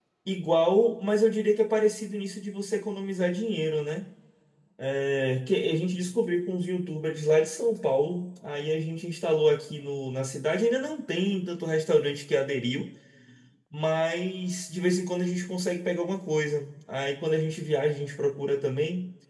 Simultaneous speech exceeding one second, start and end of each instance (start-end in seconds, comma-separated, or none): none